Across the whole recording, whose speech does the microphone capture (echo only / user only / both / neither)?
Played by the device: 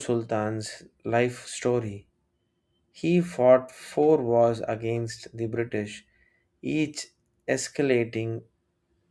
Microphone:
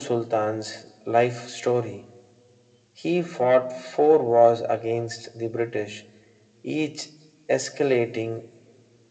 echo only